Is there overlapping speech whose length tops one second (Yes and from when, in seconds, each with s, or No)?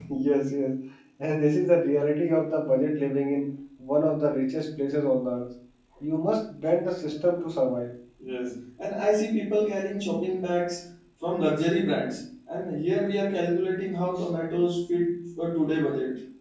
No